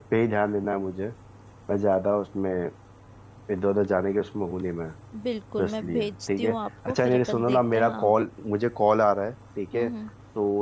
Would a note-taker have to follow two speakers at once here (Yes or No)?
Yes